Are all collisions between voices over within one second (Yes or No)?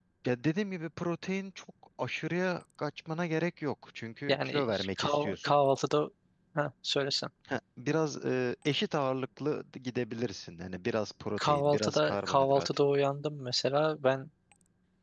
No